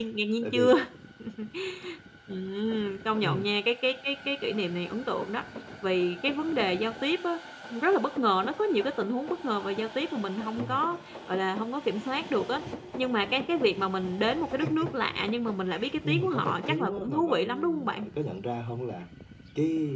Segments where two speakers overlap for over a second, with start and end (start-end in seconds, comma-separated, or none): 16.1-18.0